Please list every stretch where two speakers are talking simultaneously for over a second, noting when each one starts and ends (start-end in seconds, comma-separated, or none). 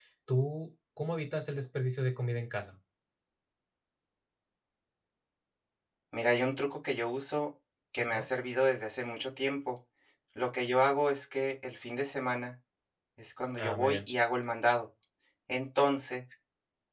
none